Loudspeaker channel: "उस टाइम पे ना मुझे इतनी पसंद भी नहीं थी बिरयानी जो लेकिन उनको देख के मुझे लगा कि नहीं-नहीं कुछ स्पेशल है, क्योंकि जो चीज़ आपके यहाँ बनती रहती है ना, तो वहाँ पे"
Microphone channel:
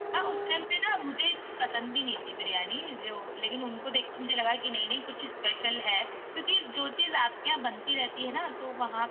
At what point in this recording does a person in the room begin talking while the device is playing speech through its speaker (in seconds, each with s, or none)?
none